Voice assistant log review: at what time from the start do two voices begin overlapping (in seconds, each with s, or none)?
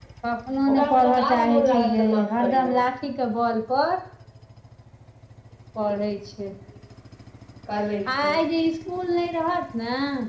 0.7 s